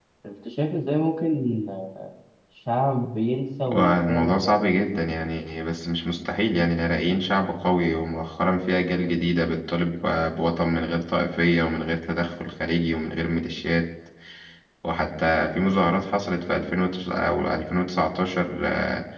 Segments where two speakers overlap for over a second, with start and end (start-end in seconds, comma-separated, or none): 3.8-5.0